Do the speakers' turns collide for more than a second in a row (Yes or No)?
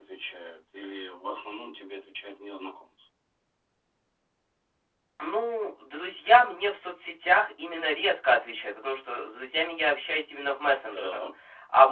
No